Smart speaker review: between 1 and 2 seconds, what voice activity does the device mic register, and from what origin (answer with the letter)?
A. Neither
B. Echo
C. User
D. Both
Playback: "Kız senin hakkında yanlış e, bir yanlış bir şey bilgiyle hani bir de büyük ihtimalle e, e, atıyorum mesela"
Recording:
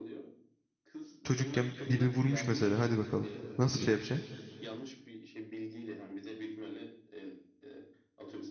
D